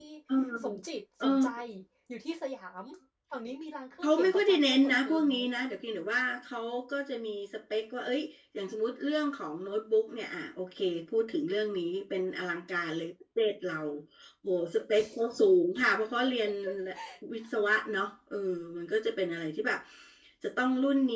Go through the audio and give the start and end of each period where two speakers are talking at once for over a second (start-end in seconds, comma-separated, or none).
4.0-5.3